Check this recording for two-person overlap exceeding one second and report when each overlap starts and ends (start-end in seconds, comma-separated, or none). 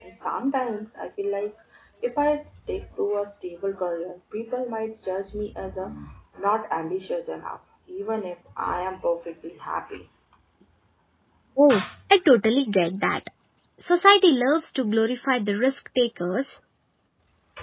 none